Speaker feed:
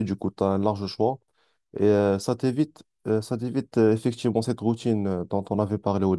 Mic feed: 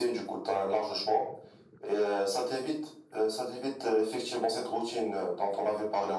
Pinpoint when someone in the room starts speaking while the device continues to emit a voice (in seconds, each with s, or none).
none